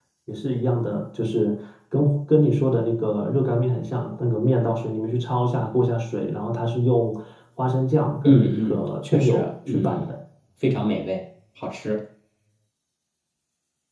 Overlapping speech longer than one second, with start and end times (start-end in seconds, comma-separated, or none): 8.2-10.1